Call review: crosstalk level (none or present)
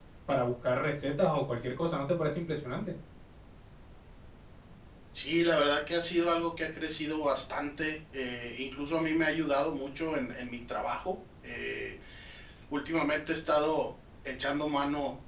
none